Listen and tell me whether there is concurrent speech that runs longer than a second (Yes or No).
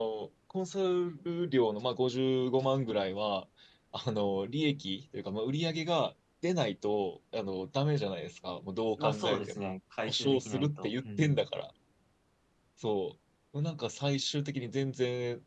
Yes